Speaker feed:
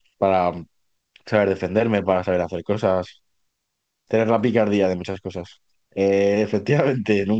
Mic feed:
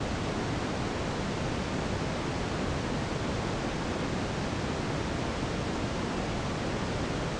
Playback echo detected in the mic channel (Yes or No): No